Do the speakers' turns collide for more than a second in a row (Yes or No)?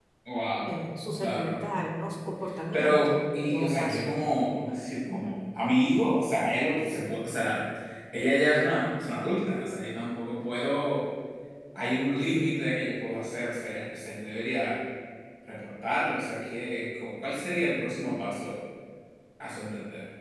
Yes